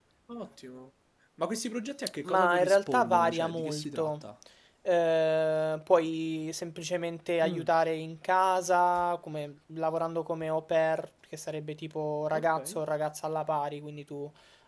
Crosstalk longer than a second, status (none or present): present